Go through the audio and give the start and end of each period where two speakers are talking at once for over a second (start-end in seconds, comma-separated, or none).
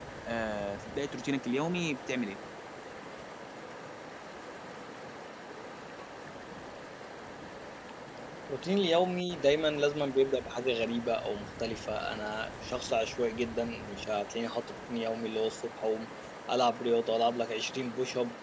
none